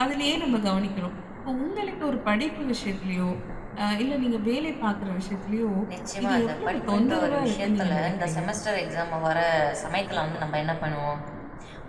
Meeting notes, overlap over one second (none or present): present